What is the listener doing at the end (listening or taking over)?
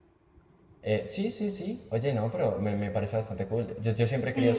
taking over